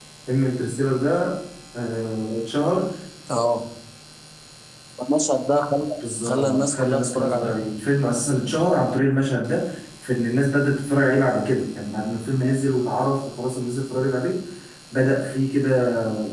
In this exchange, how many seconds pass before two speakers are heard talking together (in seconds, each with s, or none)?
6.3 s